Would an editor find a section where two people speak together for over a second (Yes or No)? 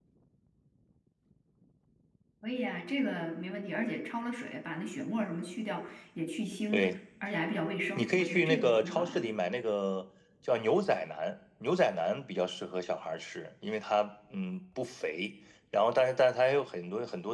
Yes